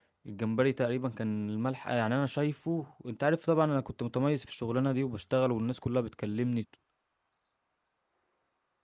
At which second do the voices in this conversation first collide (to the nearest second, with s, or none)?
none